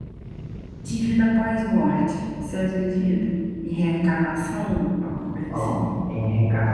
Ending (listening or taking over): taking over